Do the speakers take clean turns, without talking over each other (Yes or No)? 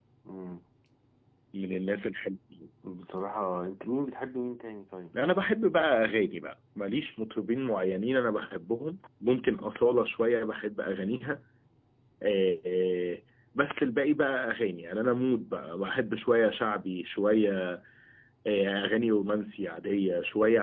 Yes